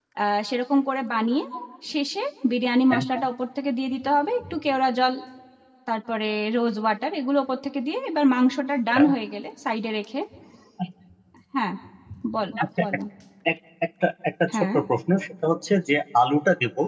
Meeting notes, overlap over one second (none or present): none